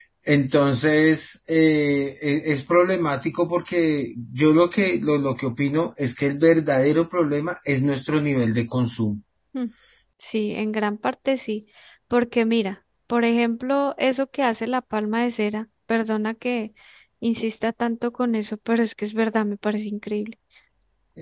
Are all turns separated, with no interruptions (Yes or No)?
Yes